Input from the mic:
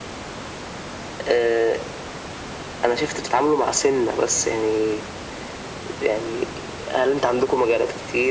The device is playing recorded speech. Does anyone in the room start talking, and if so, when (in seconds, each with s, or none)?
none